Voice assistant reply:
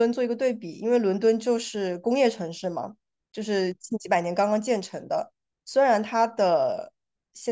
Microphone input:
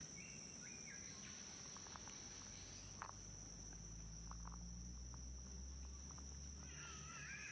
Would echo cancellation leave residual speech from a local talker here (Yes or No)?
No